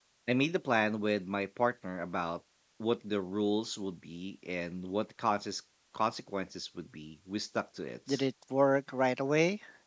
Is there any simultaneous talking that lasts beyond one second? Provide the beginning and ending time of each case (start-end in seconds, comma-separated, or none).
none